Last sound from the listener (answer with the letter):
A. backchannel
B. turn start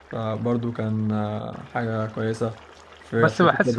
B